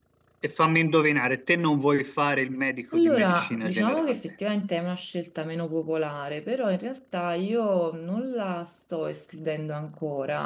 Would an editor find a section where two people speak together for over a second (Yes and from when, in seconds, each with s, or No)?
Yes, from 2.9 s